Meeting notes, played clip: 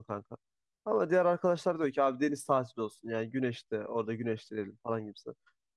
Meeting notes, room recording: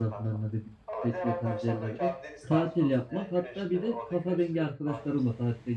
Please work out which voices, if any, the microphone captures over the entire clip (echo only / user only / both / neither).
both